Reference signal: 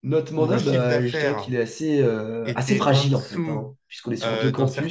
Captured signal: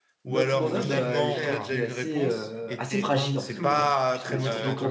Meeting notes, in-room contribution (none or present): present